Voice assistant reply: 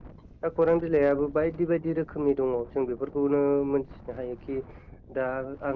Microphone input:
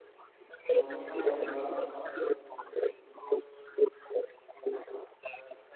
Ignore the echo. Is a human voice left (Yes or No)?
Yes